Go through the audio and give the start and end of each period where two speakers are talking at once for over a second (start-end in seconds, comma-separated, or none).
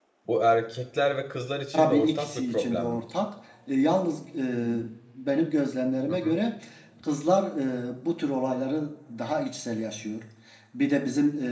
1.7-3.0